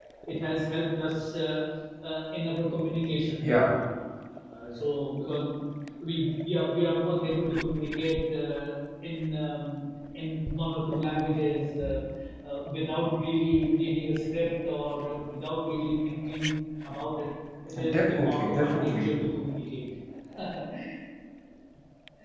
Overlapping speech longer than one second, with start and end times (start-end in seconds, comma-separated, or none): 17.9-19.1